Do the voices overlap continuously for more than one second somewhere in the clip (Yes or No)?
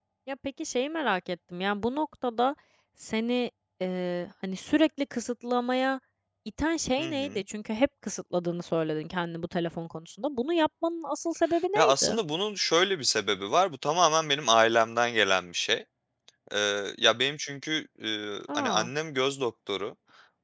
No